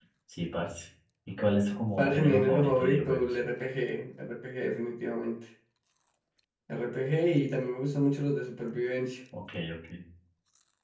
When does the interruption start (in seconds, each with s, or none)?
2.0 s